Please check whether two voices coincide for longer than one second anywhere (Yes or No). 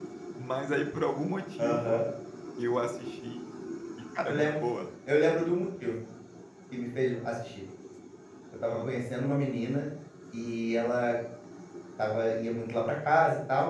No